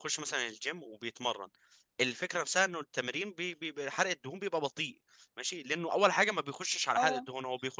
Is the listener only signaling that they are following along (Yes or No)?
Yes